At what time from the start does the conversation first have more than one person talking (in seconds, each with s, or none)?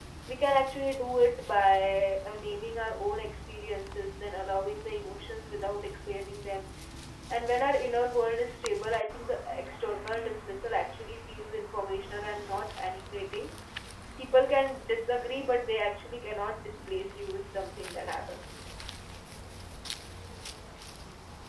none